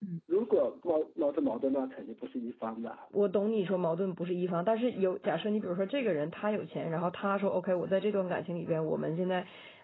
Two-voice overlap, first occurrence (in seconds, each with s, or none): none